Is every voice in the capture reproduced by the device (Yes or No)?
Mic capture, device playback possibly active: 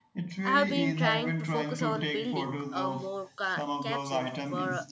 No